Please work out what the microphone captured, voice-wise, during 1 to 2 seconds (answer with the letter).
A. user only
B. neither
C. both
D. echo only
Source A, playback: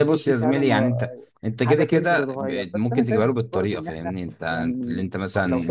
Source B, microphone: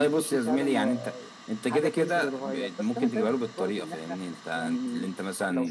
D